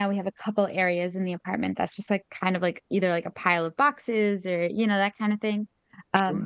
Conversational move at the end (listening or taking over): listening